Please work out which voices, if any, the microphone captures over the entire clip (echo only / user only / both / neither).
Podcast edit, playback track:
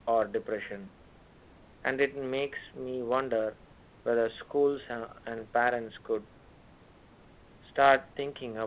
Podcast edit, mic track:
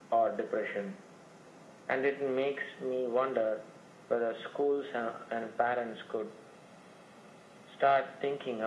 echo only